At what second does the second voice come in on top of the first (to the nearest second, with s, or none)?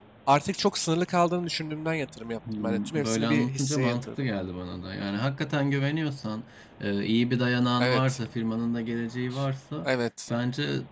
3 s